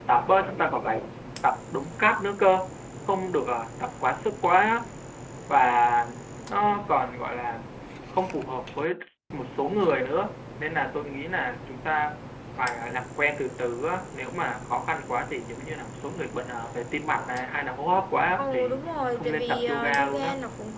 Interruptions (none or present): present